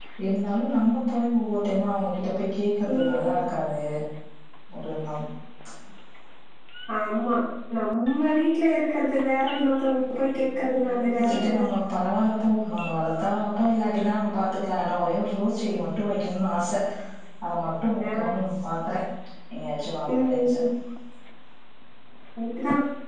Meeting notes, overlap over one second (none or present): present